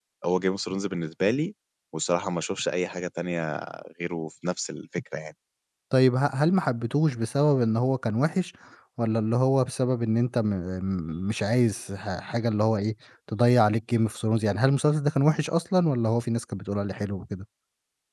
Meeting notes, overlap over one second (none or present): none